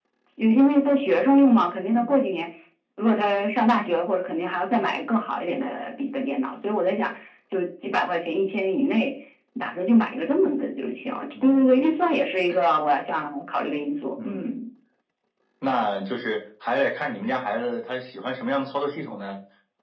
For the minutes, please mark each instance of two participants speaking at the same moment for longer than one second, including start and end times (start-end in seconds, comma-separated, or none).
none